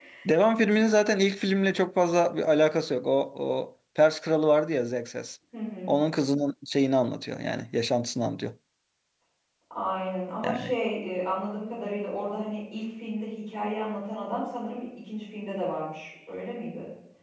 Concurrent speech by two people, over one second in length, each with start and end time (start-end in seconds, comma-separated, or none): none